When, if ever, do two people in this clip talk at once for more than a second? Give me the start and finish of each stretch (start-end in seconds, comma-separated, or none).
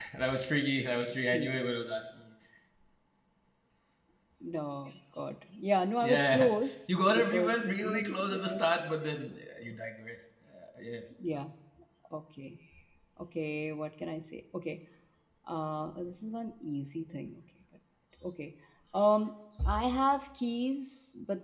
6.9-8.6